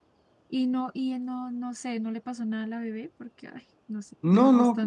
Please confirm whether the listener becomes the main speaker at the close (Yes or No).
Yes